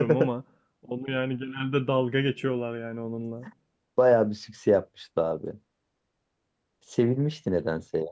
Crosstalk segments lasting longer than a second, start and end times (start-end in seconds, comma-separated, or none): none